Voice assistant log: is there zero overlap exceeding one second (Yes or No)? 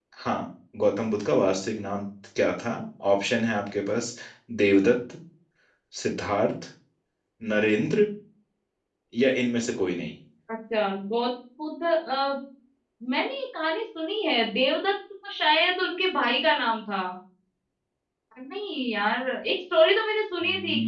Yes